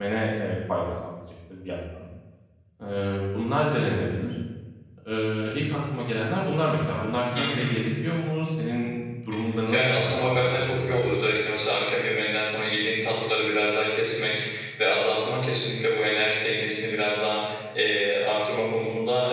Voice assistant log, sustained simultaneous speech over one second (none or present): present